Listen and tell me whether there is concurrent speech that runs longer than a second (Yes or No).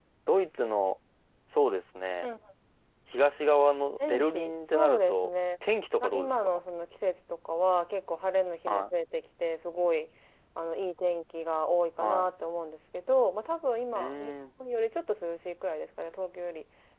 Yes